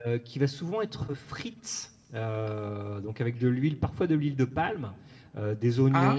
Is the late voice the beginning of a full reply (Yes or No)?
No